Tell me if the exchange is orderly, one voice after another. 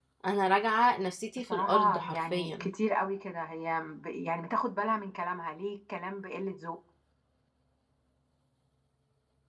No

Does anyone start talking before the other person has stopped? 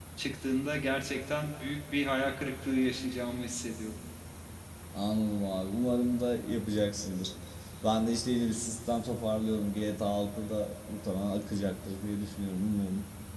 No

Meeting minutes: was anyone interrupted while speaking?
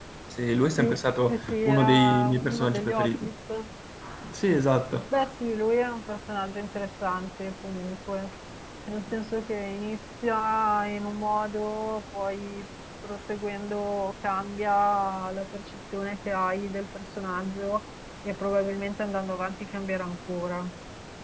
Yes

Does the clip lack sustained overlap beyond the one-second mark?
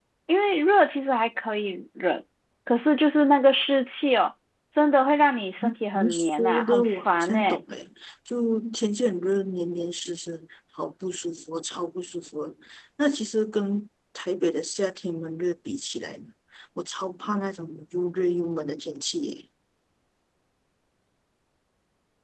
No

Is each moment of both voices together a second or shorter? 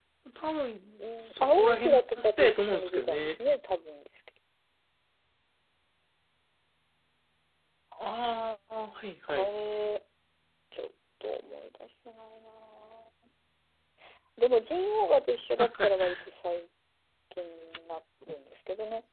No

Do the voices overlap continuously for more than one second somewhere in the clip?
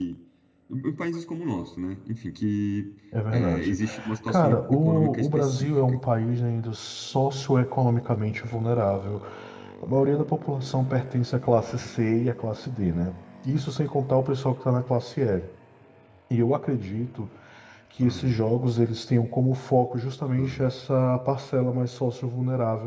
Yes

